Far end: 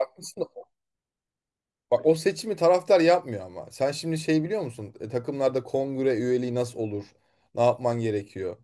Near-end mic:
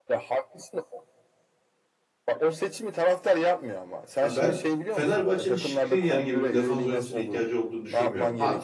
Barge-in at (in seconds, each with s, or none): 4.2 s